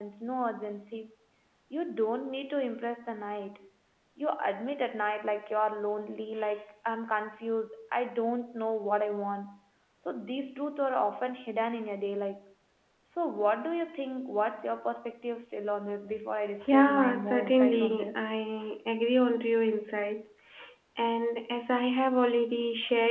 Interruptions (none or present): present